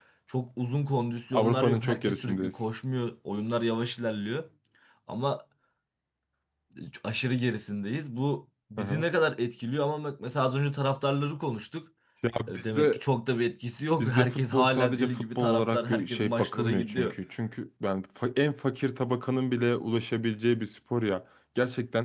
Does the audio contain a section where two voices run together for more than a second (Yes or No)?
Yes